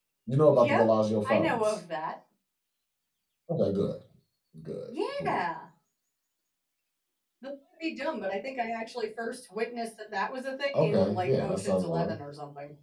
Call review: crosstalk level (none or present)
present